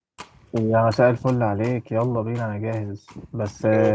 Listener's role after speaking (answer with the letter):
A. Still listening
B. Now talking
A